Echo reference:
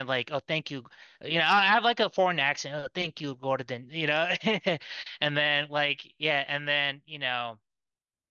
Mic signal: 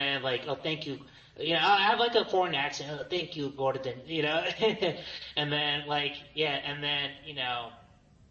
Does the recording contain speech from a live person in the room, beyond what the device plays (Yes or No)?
No